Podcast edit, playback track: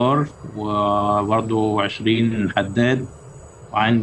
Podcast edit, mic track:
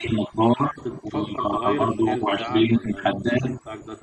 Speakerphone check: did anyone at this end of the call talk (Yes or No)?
Yes